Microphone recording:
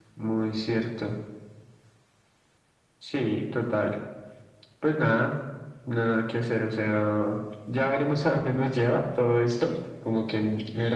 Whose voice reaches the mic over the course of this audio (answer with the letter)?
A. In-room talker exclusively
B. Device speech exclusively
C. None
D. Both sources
B